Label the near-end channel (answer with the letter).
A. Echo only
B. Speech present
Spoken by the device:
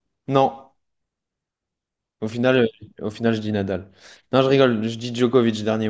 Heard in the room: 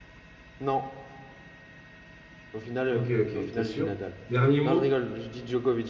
B